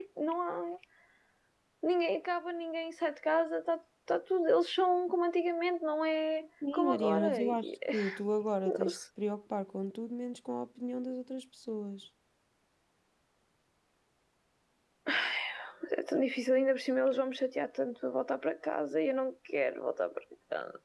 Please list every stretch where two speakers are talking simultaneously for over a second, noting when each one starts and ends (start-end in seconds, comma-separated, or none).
6.7-7.9